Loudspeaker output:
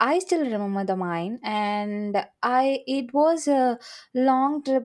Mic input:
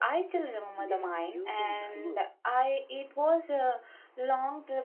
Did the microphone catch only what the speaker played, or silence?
No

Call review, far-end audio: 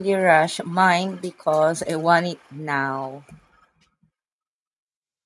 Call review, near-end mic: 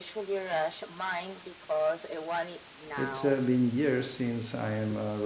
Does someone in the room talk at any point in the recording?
Yes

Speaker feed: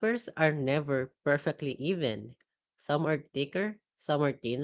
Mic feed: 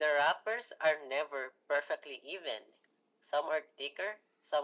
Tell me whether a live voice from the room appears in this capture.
No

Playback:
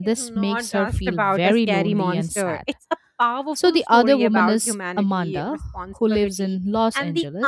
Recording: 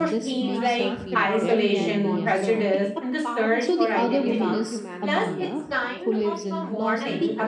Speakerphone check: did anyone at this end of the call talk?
Yes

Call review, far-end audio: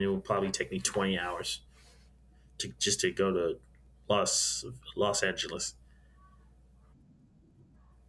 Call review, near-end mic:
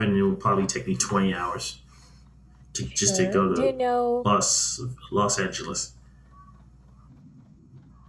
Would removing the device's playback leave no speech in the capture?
No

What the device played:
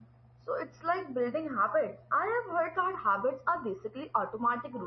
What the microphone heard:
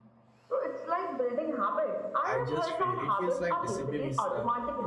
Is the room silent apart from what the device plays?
No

